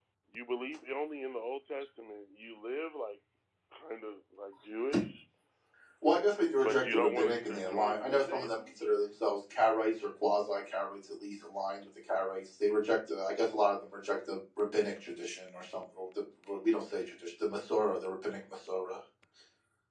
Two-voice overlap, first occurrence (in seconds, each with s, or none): 6.6 s